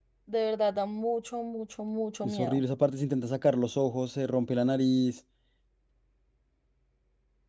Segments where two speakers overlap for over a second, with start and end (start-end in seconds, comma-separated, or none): none